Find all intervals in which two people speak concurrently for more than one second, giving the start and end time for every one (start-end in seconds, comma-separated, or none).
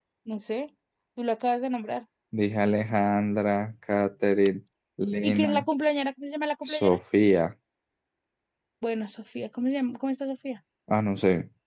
none